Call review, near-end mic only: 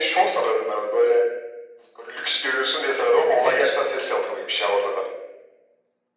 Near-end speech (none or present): none